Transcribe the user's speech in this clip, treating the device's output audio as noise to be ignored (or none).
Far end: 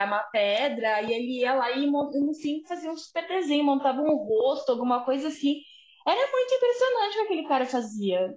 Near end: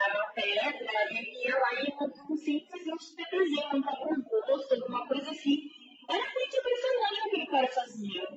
none